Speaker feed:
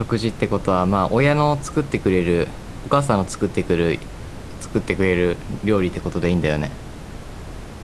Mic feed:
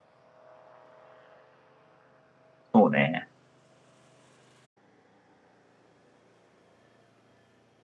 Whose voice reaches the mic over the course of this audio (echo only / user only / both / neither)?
user only